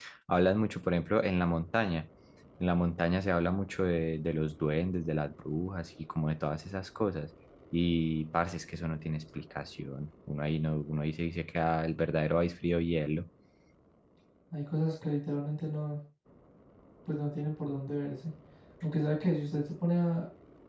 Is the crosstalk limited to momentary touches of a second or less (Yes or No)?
Yes